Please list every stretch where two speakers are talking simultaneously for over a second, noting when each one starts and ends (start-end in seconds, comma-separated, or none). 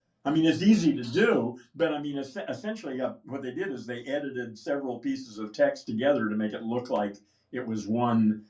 none